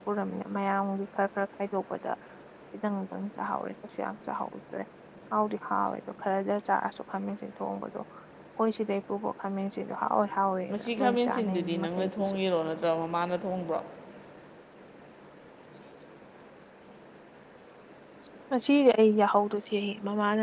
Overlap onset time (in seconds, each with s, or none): 10.7 s